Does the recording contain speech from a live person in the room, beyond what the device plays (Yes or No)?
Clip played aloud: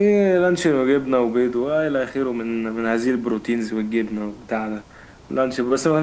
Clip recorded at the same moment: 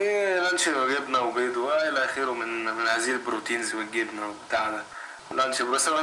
No